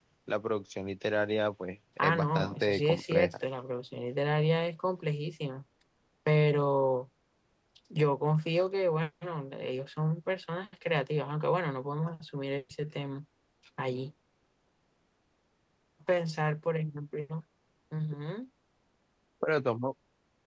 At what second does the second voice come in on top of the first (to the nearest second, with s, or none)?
2 s